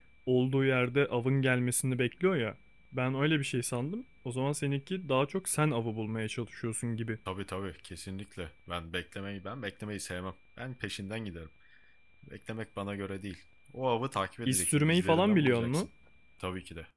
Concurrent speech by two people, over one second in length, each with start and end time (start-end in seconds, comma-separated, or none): 14.4-15.9